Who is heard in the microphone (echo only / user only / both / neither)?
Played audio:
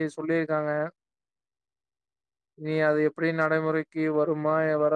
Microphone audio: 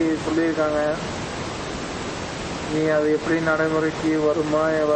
echo only